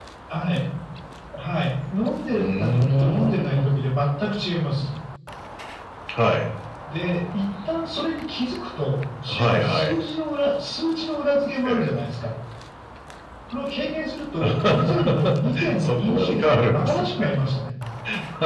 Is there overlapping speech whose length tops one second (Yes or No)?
Yes